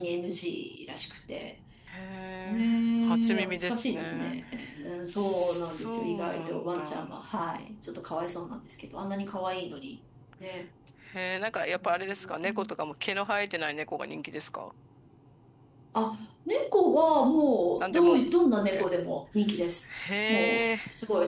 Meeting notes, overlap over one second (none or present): present